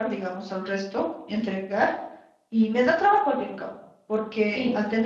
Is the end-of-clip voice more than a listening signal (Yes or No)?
No